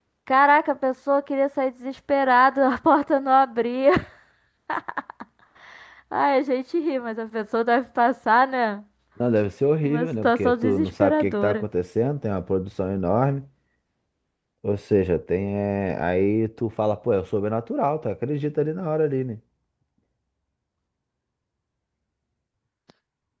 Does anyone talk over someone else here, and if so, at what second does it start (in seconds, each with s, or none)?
9.8 s